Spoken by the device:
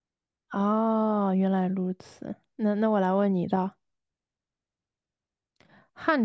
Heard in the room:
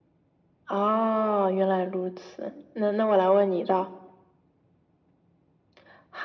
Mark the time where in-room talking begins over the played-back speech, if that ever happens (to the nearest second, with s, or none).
none